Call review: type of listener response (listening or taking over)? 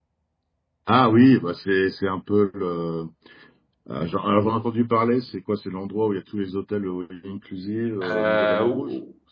taking over